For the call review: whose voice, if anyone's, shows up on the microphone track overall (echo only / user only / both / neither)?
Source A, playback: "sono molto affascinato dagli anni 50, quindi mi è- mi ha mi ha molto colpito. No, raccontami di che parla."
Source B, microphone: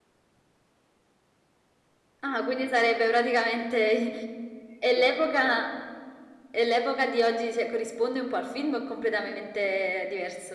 user only